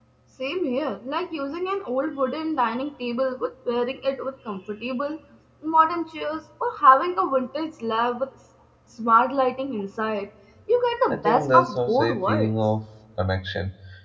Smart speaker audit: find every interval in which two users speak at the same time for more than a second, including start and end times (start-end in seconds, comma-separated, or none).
11.1-12.5